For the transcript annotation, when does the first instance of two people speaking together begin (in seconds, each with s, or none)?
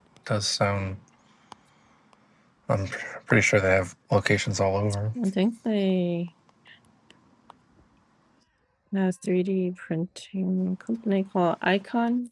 none